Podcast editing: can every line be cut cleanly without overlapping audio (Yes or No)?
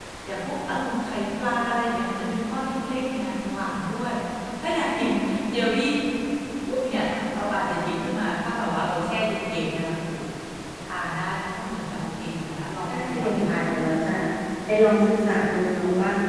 No